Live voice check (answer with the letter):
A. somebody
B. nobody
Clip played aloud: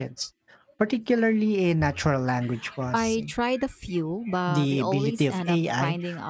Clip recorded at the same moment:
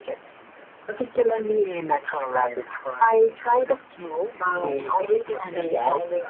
B